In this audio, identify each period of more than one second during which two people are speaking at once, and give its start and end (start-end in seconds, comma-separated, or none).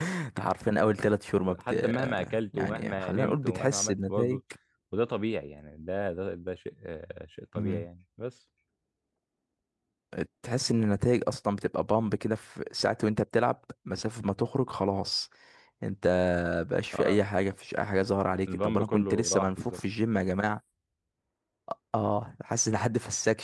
1.6-4.4, 18.5-19.8